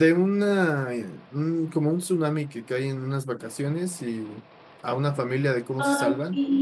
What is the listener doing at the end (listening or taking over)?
taking over